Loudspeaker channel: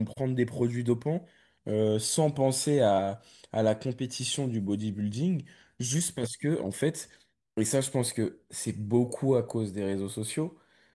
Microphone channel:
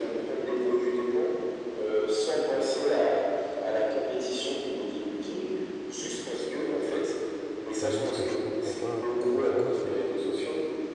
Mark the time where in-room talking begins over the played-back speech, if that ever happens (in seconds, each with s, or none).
7.8 s